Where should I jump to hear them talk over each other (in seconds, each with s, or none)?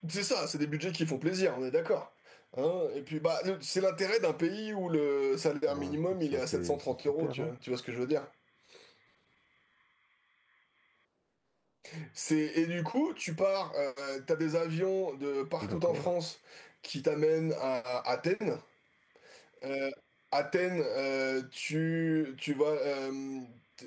5.7 s